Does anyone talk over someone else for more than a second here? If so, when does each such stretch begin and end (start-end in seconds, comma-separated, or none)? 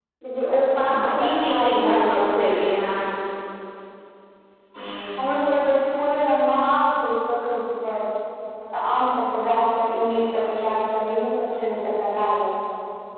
0.8-2.4